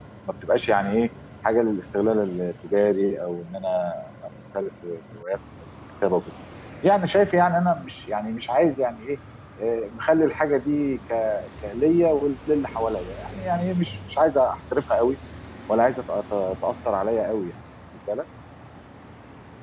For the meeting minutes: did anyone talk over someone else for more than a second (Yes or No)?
No